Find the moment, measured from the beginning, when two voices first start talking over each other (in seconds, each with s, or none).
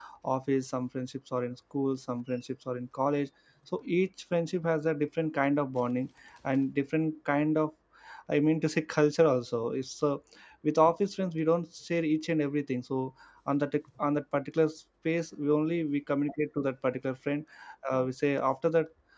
none